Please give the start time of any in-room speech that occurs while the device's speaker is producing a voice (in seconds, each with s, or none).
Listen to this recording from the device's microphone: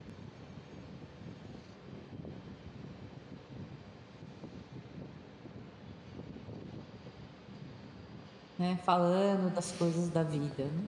8.6 s